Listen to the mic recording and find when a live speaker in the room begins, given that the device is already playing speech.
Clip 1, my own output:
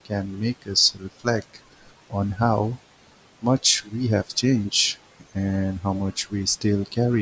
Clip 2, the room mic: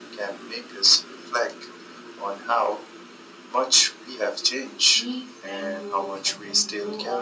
4.9 s

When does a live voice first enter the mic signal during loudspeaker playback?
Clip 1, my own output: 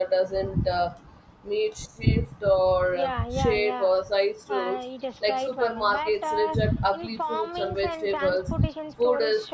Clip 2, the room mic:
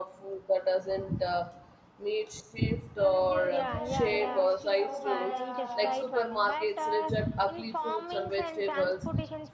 2.9 s

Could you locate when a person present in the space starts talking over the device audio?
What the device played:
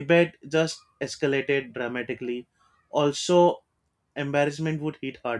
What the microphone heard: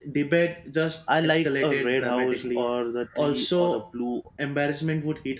1.1 s

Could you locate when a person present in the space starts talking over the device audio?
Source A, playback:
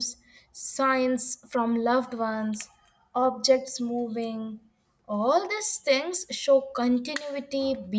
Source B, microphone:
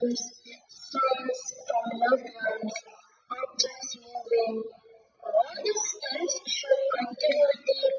none

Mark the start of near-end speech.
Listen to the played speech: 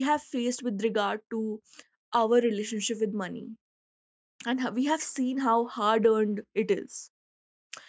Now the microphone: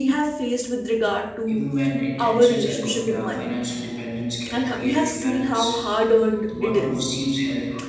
1.5 s

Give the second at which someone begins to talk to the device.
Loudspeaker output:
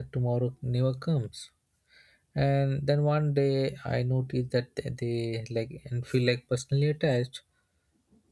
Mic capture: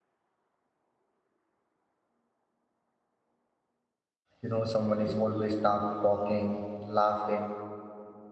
4.4 s

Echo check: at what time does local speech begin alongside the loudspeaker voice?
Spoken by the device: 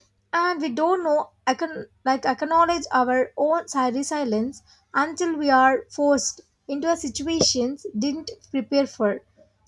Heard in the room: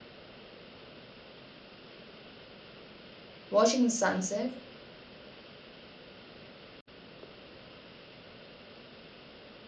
3.5 s

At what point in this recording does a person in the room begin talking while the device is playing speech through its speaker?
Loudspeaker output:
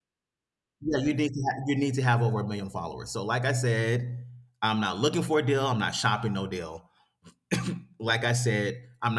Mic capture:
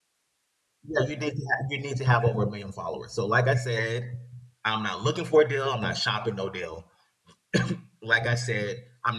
none

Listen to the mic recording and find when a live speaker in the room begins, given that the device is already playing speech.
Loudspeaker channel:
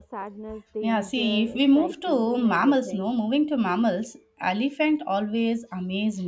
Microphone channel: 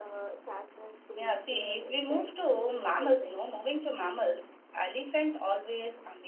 none

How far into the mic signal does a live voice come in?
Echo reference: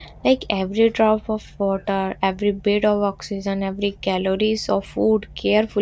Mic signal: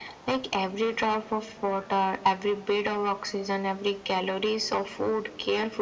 none

